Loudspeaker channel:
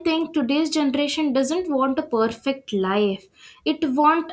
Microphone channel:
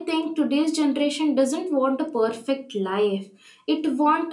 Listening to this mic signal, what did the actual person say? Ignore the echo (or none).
none